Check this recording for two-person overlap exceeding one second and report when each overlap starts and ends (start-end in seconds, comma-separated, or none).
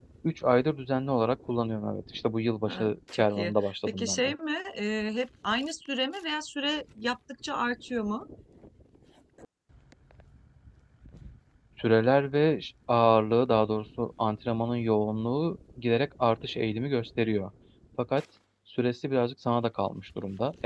2.6-4.3